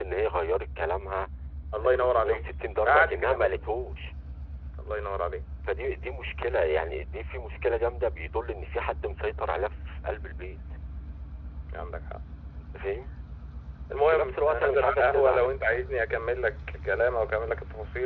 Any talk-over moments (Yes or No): Yes